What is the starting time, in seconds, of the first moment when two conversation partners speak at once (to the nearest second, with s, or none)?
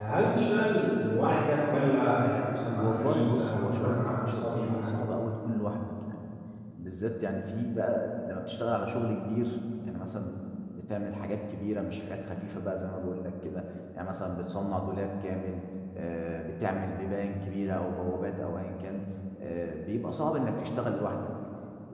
3 s